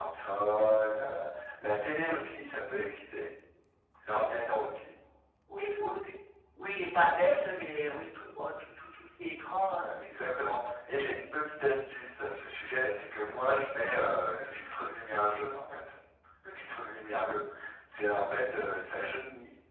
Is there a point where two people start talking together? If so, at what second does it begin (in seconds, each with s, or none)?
none